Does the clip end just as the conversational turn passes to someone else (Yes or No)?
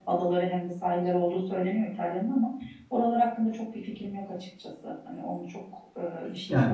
Yes